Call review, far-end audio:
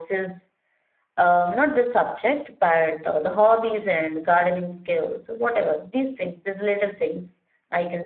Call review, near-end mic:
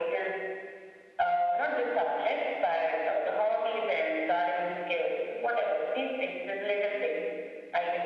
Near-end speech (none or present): none